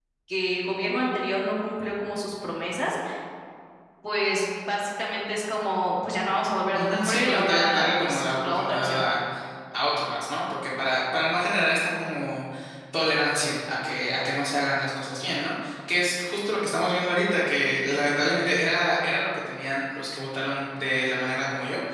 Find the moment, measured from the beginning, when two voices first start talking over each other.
6.7 s

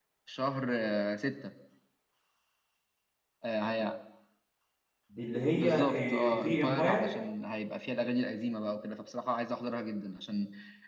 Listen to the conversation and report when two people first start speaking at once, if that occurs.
5.5 s

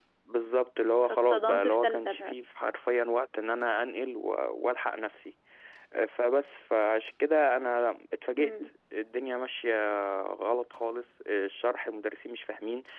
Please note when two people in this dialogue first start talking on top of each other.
1.0 s

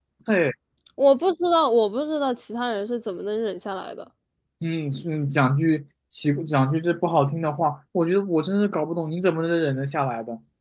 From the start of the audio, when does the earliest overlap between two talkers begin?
none

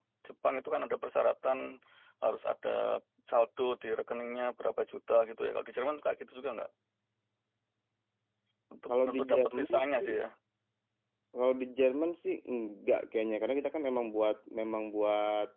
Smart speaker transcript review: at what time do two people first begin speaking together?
8.9 s

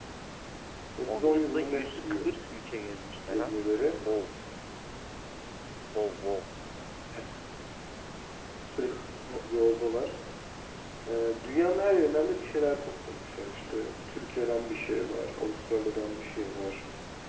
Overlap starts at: 1.1 s

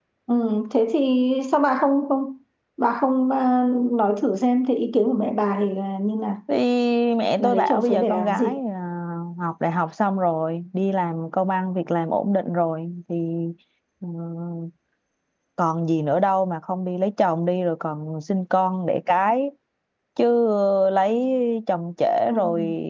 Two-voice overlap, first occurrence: 7.4 s

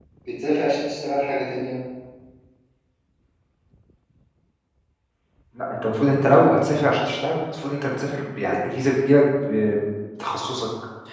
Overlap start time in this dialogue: none

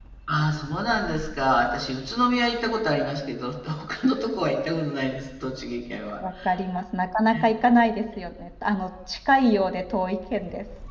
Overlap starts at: none

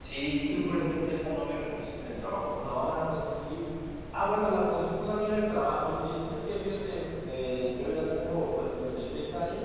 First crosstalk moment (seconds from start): none

